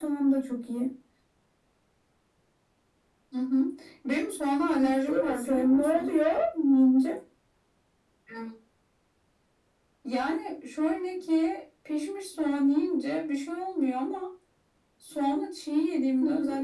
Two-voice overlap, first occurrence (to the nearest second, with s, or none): 5 s